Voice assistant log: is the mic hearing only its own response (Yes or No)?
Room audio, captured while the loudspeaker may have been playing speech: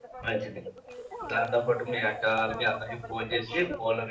No